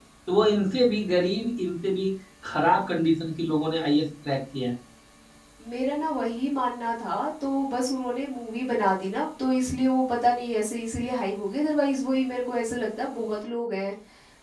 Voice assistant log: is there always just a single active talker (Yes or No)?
Yes